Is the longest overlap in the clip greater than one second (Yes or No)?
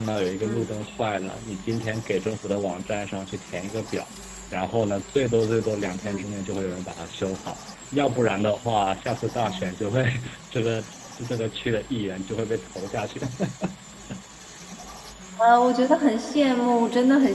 No